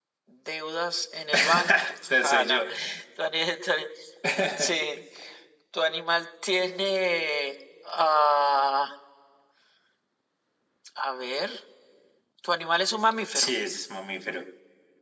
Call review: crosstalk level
present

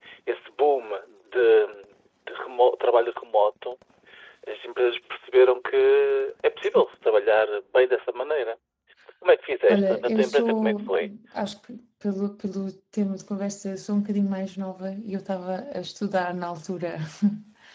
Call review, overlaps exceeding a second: present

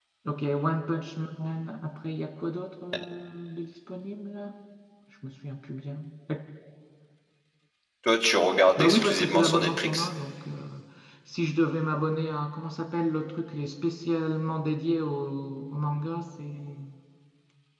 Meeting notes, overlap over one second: present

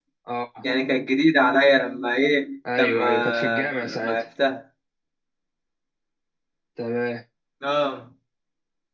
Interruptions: present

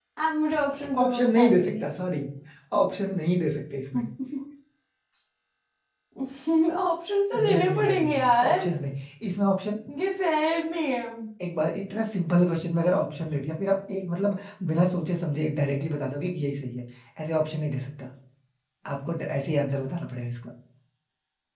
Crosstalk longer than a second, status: present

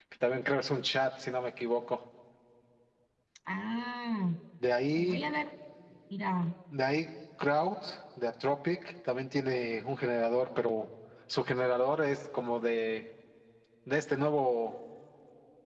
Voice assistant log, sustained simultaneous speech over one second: none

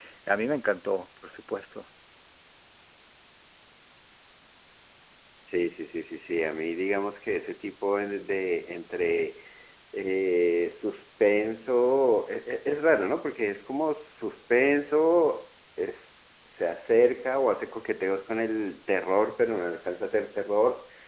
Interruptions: none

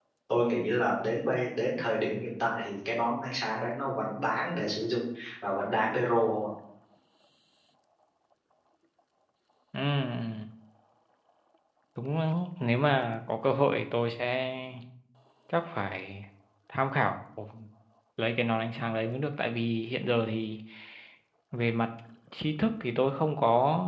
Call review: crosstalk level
none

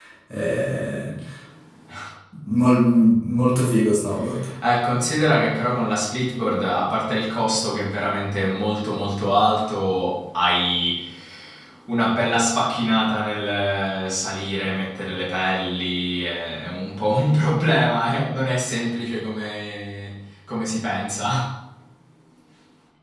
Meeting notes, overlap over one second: none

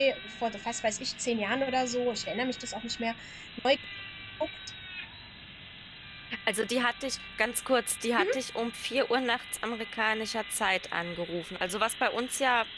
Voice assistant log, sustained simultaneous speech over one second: none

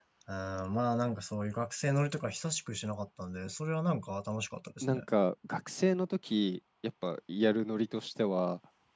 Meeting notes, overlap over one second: none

